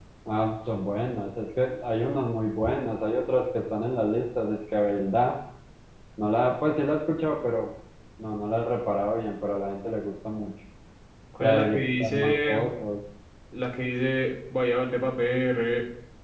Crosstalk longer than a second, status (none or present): present